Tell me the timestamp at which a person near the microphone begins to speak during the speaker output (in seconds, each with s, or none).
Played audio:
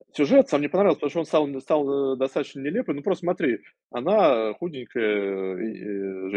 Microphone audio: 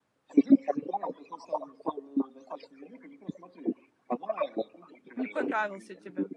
5.2 s